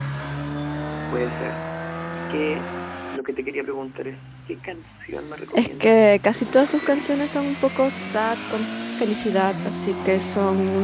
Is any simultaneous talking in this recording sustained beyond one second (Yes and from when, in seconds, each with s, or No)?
Yes, from 5.5 s